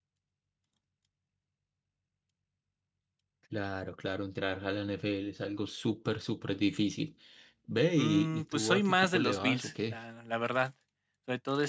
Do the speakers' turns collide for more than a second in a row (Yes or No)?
Yes